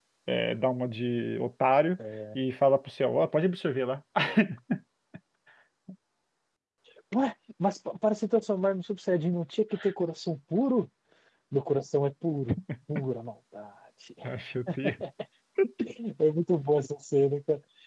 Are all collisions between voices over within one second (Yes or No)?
Yes